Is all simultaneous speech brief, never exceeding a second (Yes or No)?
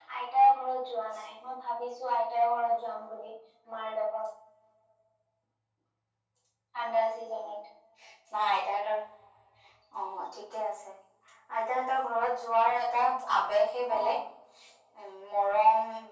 Yes